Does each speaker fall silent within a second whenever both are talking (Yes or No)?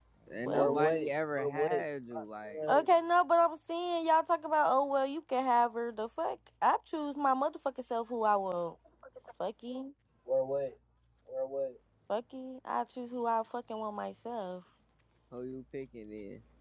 No